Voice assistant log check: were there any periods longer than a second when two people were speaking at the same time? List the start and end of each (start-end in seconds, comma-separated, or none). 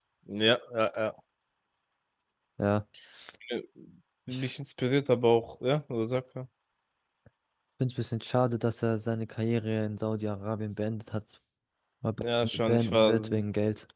12.2-13.4